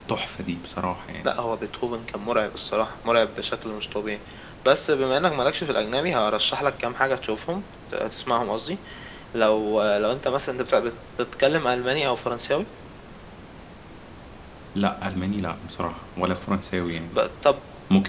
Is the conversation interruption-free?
Yes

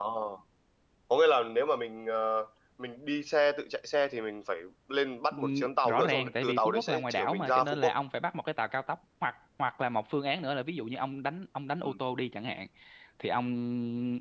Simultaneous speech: Yes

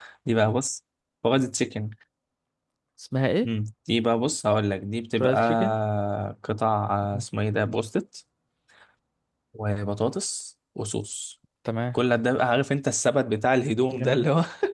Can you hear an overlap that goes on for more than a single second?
No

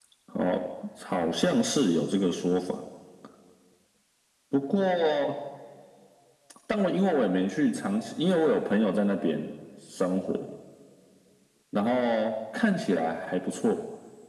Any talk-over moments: No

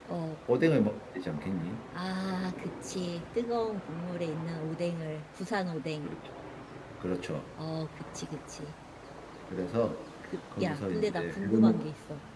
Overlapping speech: Yes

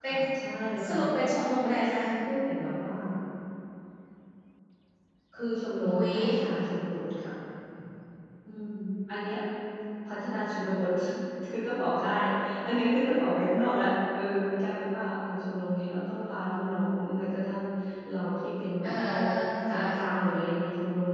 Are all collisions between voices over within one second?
Yes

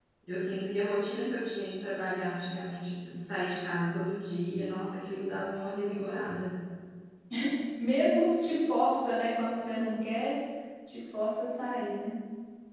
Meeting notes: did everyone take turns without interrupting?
Yes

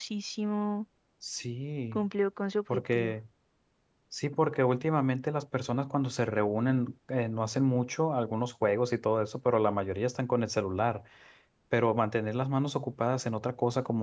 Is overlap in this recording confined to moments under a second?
Yes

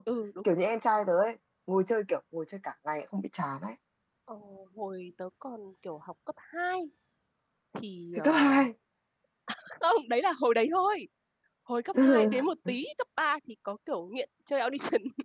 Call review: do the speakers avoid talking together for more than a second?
Yes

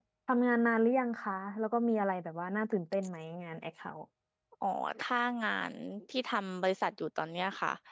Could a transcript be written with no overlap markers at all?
Yes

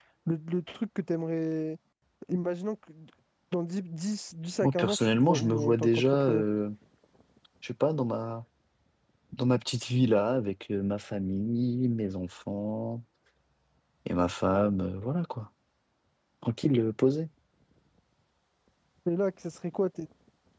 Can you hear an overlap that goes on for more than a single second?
Yes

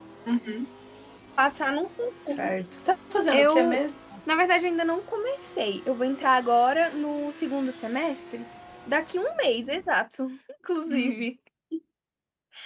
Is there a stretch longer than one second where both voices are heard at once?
No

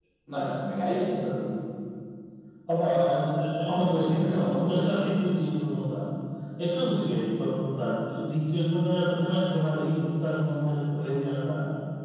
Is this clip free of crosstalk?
No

